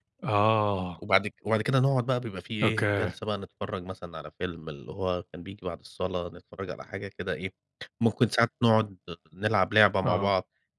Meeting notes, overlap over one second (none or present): none